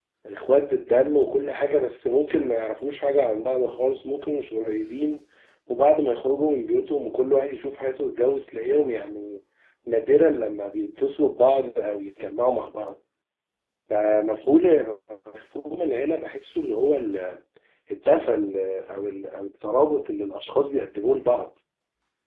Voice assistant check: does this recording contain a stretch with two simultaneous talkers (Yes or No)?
No